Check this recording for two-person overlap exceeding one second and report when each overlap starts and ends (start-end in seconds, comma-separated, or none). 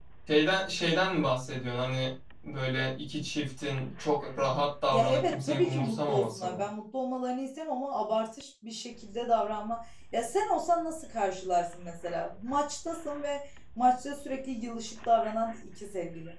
4.9-6.6